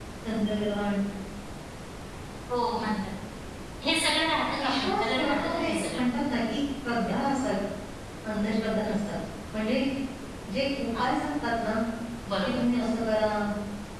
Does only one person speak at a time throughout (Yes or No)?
No